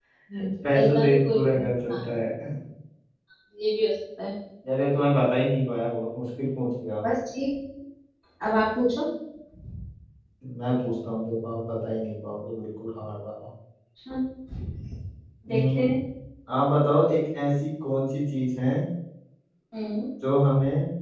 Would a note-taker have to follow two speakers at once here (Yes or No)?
Yes